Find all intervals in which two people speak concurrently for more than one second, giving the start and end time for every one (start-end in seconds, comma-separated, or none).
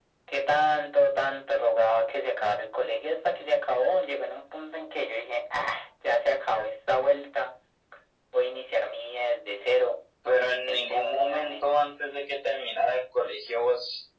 10.4-11.7